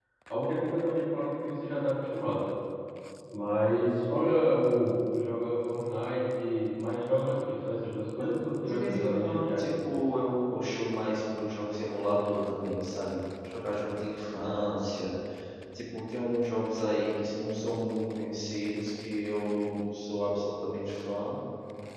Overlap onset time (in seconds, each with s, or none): 8.6 s